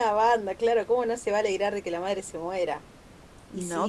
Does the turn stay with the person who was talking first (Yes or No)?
No